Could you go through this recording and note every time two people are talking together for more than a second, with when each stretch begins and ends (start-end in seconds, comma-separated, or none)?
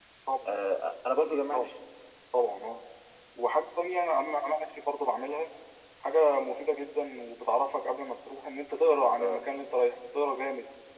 none